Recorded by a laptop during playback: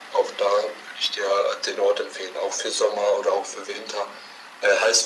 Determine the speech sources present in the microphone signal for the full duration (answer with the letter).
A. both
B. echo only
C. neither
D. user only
B